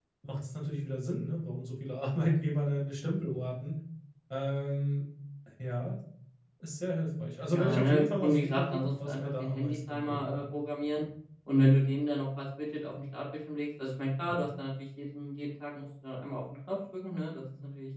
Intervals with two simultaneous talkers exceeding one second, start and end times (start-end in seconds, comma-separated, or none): 7.5-10.6